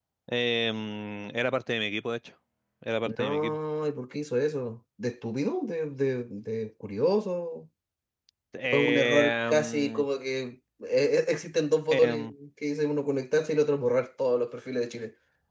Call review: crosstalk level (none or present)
present